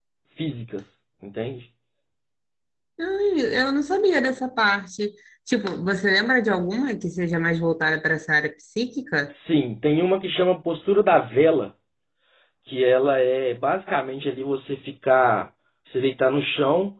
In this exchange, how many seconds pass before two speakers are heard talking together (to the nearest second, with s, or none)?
none